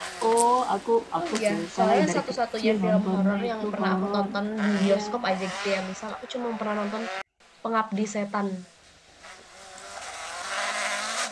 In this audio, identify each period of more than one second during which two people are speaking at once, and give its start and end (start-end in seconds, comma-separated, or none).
1.2-4.3